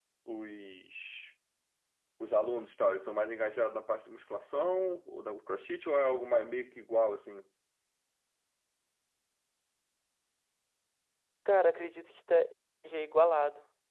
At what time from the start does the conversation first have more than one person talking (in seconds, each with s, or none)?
none